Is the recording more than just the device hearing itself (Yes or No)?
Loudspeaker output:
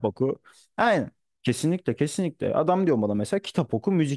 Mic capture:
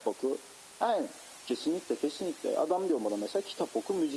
No